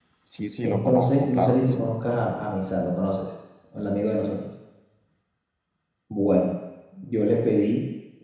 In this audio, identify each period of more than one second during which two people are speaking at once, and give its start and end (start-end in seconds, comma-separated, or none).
0.6-1.9